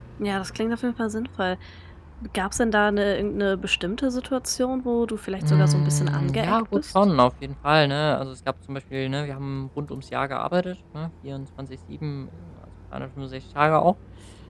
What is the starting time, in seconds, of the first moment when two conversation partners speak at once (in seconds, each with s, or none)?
5.4 s